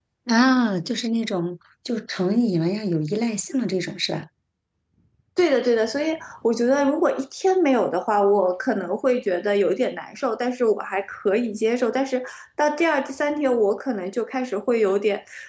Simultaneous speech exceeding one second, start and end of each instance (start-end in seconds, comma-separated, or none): none